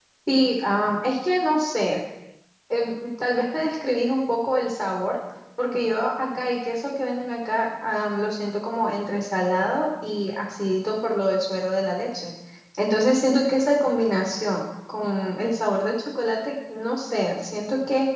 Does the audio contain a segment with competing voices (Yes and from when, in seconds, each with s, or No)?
No